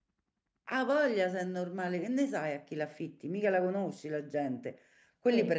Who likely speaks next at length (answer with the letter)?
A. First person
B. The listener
A